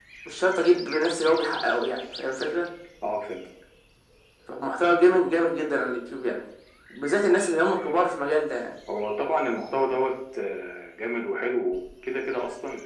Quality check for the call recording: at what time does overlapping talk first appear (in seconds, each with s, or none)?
none